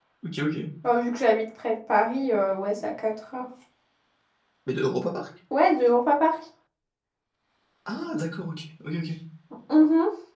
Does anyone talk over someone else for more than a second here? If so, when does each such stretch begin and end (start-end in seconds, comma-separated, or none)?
none